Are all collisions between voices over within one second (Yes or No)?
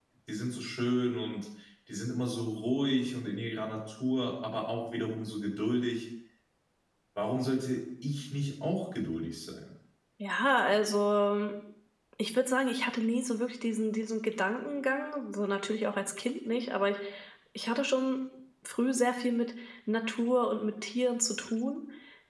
Yes